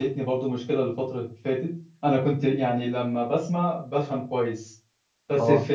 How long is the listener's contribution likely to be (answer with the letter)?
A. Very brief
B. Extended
A